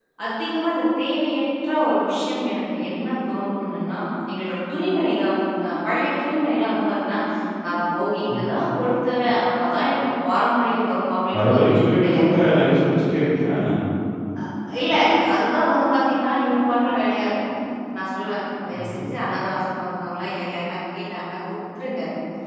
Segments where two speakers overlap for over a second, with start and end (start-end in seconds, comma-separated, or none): 11.4-12.6